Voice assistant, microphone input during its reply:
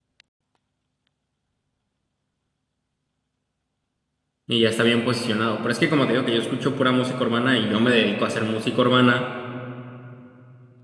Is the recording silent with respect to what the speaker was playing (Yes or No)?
Yes